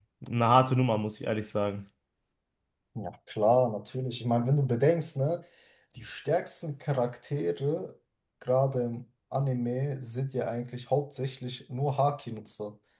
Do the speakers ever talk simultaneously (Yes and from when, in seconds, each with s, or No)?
No